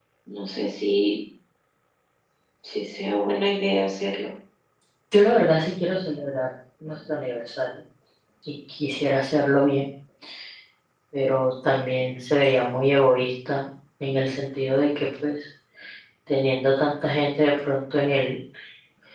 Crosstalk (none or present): none